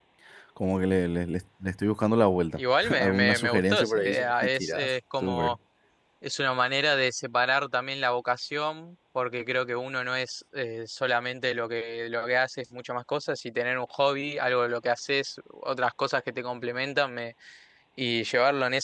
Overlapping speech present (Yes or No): Yes